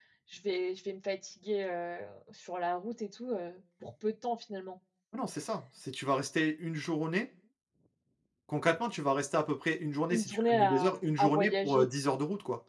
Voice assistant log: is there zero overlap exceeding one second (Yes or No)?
No